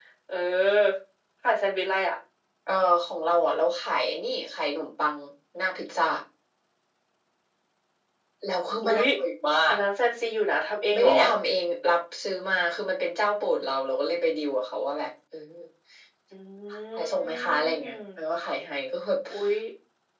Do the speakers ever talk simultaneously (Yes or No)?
Yes